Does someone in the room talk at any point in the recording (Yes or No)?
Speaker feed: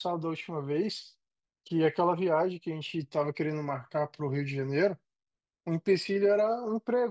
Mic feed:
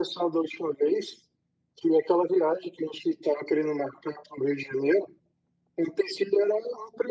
No